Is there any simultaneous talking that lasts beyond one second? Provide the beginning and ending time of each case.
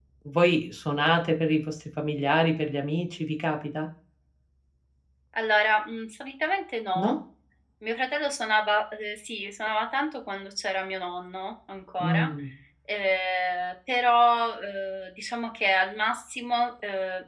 none

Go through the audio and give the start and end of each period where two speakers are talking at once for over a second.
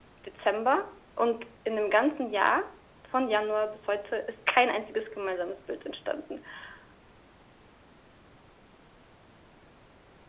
none

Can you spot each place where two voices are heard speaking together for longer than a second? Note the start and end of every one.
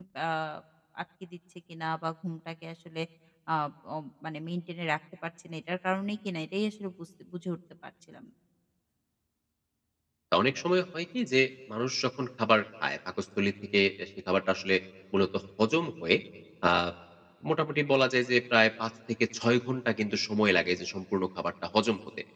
none

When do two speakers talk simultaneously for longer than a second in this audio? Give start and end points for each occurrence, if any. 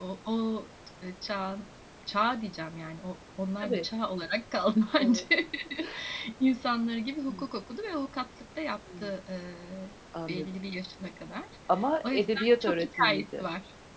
12.0-13.4

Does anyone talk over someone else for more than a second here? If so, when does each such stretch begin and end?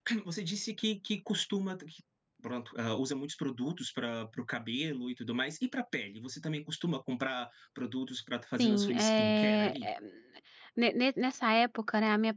8.6-9.9

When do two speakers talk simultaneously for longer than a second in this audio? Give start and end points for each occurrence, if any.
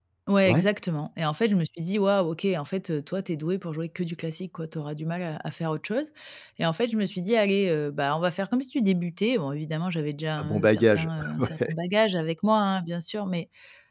10.4-11.7

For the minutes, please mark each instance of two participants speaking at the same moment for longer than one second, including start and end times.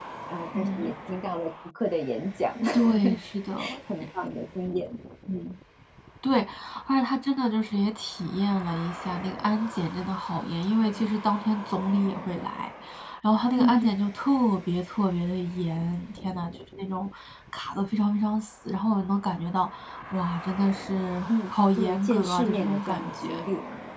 21.3-23.4

